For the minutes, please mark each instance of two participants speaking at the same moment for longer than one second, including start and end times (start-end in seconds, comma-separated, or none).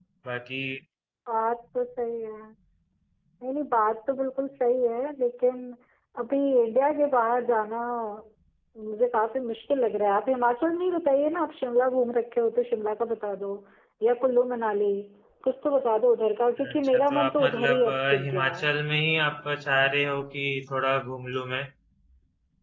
16.7-18.7